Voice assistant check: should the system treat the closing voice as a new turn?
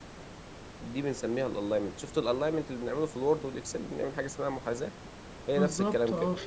Yes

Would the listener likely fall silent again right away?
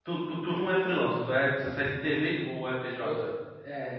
No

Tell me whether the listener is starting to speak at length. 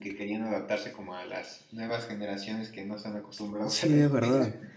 Yes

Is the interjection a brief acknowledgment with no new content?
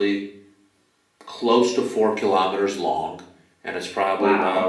Yes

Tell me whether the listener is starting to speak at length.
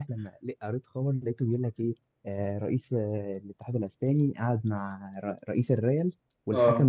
No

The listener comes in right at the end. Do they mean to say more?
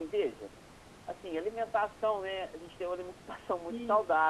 No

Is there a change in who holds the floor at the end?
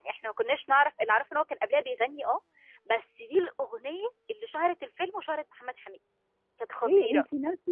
Yes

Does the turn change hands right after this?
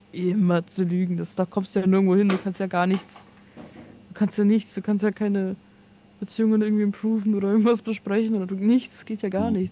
Yes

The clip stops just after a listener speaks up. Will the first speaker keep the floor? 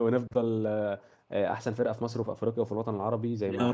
No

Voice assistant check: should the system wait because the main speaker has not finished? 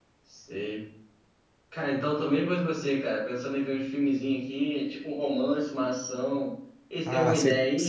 No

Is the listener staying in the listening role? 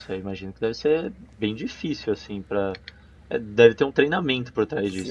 No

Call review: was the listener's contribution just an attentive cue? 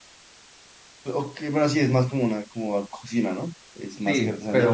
No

